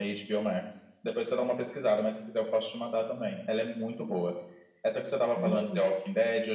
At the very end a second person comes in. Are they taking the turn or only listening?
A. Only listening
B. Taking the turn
A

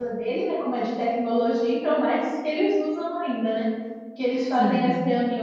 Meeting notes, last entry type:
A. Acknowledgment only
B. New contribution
A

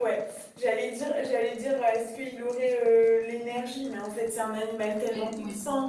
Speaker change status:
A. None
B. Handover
A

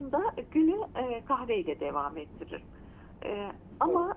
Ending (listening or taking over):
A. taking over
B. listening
B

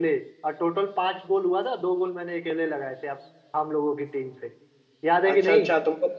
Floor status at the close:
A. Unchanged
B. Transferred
B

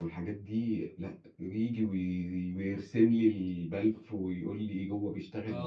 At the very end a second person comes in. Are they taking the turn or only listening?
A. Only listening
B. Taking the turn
B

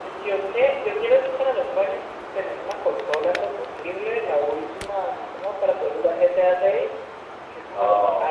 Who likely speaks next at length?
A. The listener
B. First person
B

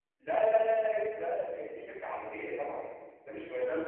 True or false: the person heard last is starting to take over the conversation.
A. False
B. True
A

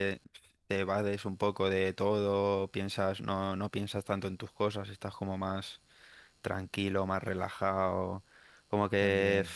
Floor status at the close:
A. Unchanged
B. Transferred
A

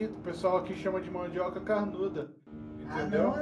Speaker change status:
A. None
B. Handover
B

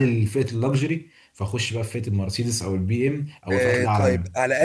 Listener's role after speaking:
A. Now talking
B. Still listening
A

